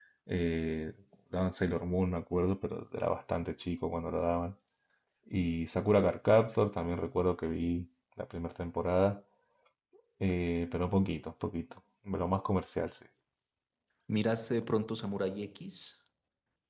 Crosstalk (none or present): none